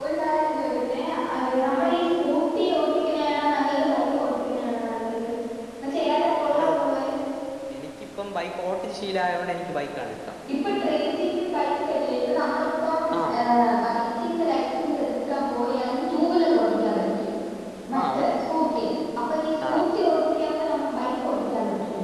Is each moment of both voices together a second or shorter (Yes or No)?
Yes